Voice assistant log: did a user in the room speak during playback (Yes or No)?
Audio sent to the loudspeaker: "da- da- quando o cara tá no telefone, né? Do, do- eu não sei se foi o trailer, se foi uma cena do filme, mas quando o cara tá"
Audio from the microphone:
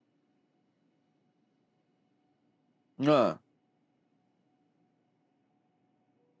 Yes